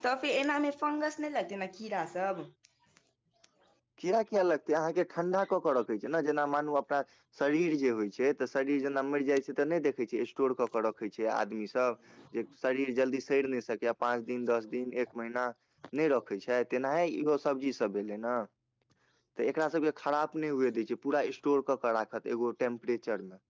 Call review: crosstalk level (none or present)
none